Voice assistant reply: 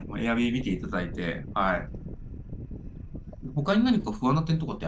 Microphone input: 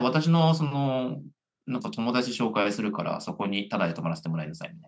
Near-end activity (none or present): present